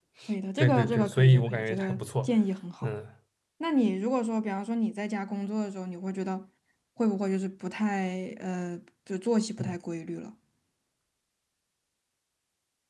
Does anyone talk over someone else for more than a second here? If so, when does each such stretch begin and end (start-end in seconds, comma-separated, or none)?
0.6-2.3